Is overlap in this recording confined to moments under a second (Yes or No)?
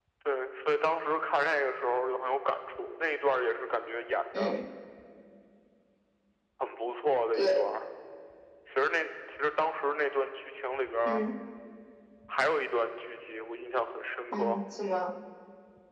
Yes